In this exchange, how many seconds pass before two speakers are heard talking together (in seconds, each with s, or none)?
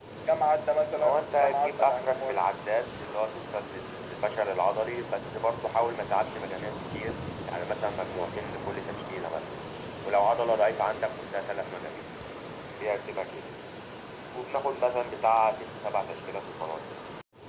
1.0 s